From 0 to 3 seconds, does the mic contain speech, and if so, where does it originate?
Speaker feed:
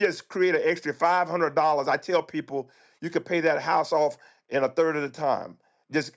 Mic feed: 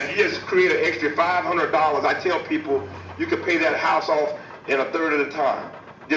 echo only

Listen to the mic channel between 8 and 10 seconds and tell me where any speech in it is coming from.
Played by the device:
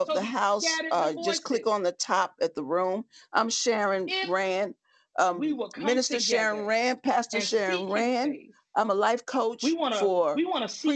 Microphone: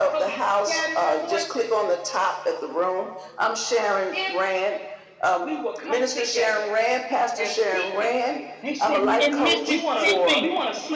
both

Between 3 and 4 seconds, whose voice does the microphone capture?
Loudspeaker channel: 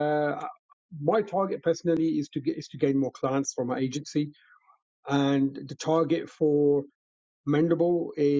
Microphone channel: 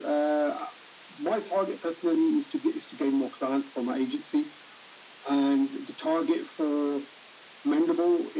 echo only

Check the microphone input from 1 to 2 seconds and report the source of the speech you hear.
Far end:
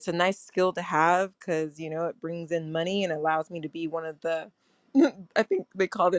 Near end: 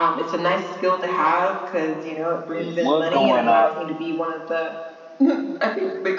echo only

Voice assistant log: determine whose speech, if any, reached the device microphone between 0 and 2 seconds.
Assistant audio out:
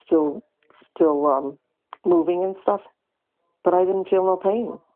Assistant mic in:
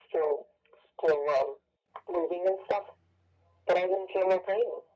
echo only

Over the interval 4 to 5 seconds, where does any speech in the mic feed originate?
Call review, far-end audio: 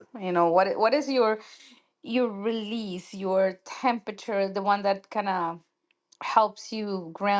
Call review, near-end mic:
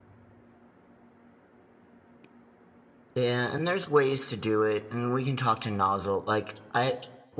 user only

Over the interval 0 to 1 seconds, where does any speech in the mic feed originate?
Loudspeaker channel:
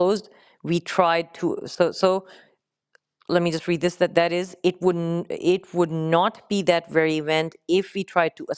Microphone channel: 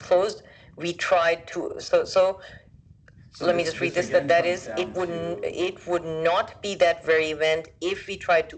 echo only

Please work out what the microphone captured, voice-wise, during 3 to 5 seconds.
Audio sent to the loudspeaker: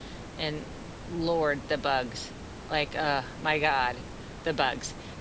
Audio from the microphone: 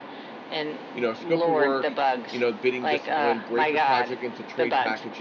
both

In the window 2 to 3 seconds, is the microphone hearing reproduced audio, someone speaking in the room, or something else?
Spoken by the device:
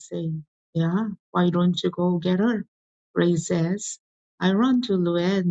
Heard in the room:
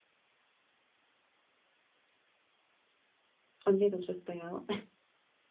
neither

